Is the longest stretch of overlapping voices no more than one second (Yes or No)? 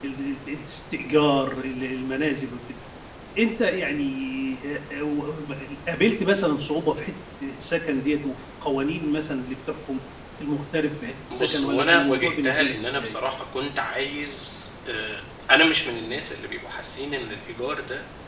No